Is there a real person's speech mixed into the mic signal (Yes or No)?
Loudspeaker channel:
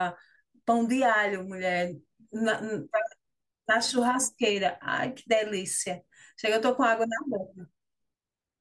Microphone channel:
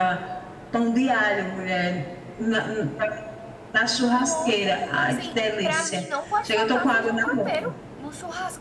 Yes